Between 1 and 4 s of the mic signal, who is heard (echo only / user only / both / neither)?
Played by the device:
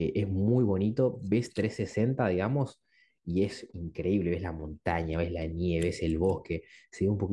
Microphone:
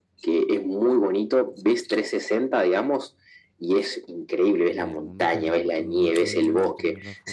echo only